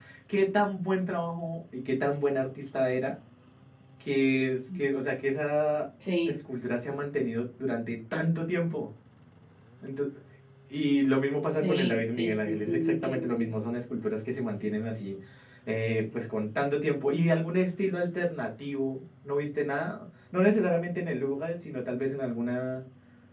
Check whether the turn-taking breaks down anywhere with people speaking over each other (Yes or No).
Yes